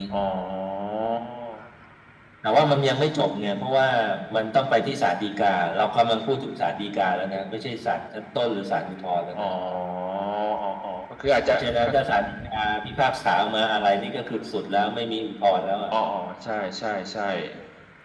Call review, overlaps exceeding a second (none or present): none